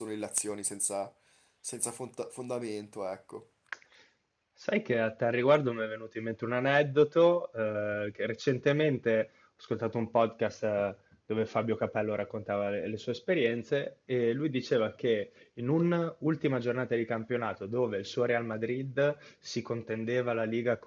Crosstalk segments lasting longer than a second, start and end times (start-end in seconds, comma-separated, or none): none